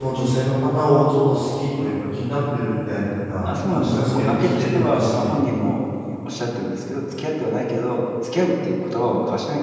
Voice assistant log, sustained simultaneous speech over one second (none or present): present